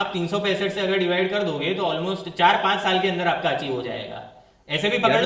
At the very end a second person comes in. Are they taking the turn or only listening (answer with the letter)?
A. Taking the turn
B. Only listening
B